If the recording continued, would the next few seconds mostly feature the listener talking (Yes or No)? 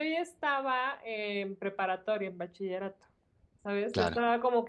No